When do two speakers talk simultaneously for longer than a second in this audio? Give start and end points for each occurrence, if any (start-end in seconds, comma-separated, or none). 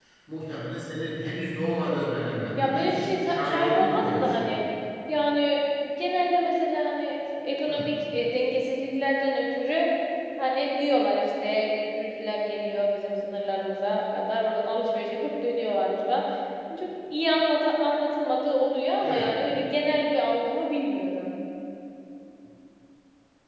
2.6-4.5